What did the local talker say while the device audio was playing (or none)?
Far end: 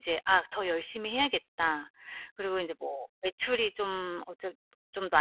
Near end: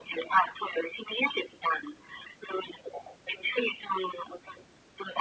none